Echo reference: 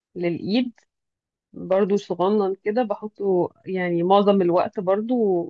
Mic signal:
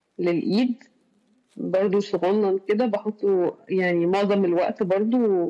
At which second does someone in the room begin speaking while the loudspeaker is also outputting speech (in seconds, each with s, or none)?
none